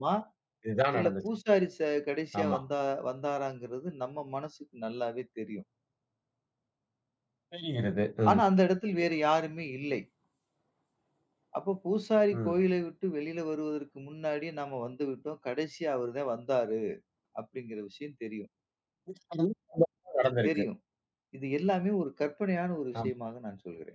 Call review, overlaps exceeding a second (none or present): none